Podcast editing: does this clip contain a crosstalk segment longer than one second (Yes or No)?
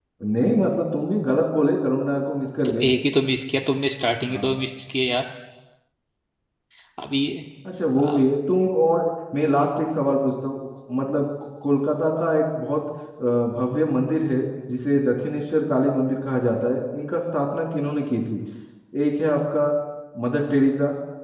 No